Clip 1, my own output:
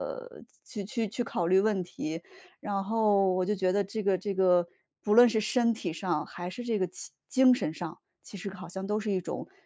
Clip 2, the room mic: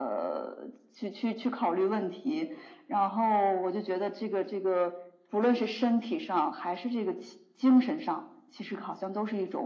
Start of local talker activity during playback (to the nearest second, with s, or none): none